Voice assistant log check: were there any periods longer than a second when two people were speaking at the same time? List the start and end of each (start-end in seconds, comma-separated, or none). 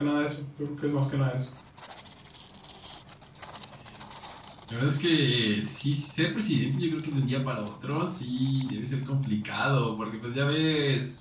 none